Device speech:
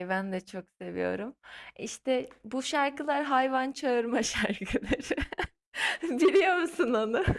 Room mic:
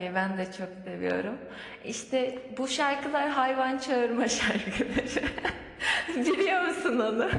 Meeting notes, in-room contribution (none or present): none